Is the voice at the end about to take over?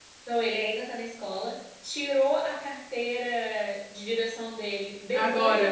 No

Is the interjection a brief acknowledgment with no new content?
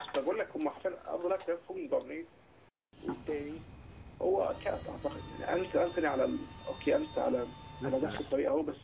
Yes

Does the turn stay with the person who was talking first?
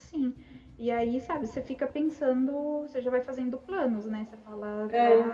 Yes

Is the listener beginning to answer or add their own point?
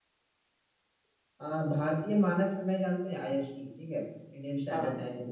No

